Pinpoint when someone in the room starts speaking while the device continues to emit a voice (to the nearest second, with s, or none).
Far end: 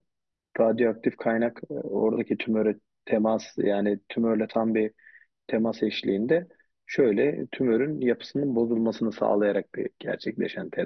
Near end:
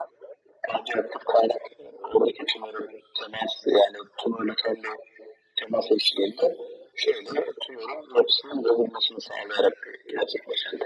none